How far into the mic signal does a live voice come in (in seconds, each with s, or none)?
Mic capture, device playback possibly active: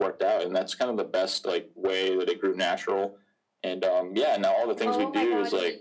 4.8 s